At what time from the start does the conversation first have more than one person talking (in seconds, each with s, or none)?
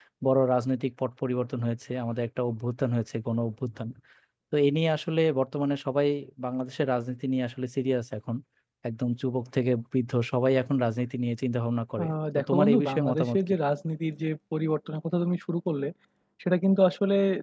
12.0 s